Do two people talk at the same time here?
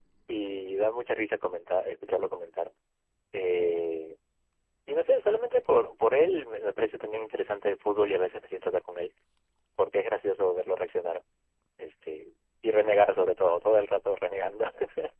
No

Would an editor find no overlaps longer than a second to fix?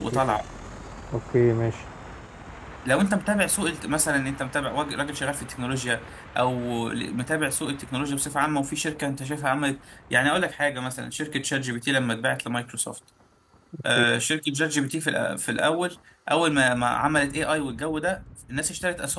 Yes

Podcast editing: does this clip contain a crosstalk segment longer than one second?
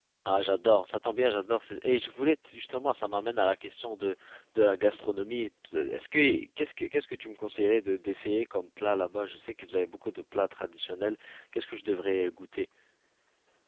No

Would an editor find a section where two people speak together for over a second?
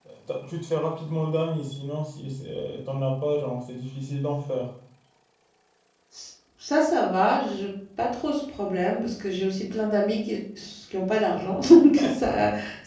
No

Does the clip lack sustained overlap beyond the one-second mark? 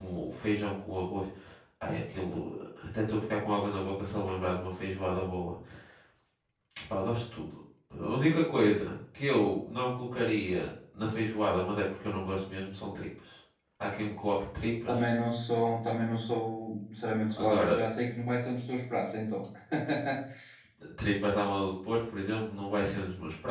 Yes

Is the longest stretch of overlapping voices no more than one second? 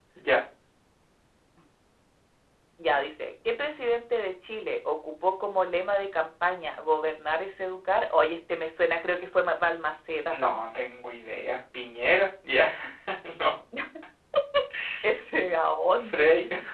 Yes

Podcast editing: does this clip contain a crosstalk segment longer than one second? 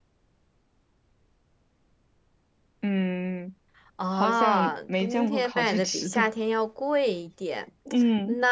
Yes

